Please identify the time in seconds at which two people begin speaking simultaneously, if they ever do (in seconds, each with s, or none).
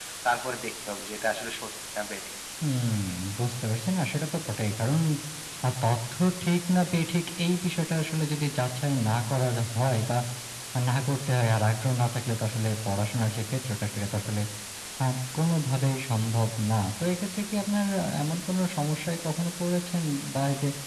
none